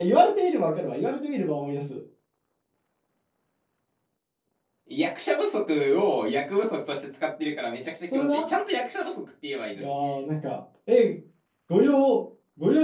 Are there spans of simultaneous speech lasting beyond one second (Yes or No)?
No